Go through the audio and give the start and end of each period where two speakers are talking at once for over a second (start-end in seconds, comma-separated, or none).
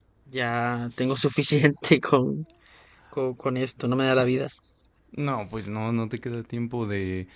none